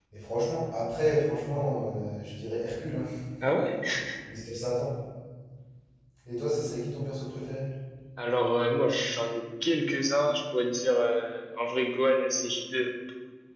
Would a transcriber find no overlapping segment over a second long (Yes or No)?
Yes